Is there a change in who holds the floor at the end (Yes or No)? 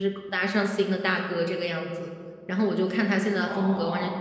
No